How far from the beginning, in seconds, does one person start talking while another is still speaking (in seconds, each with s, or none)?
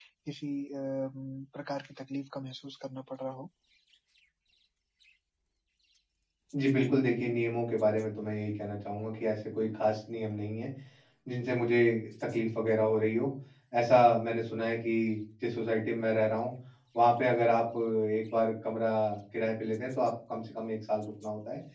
none